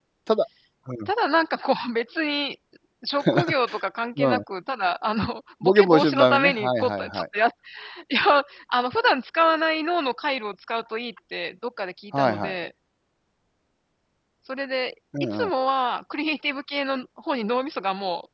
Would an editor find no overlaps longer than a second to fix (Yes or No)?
No